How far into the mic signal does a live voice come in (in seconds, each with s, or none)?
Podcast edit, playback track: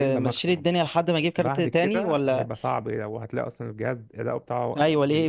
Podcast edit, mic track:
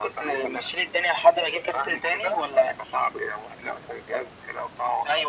none